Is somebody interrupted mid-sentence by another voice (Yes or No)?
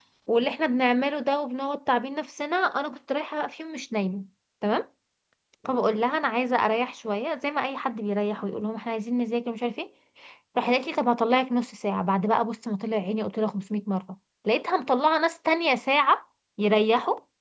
No